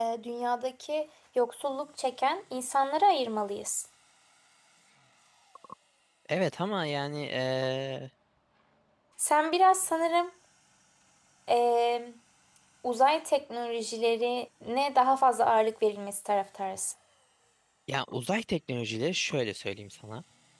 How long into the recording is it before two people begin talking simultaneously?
none

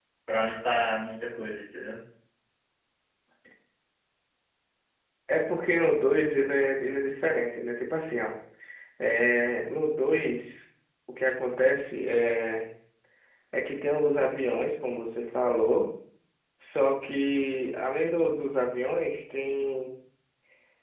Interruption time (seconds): none

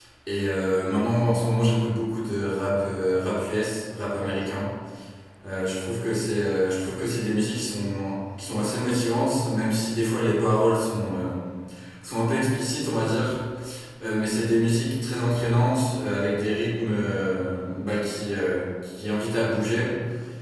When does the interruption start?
none

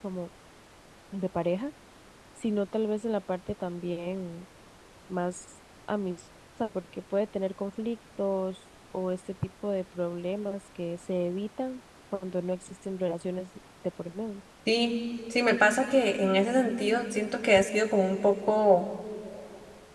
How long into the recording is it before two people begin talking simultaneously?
none

